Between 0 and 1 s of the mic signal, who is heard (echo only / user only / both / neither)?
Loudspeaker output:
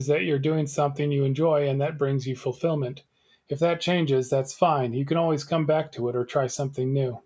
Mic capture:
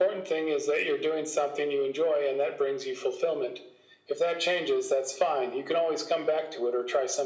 echo only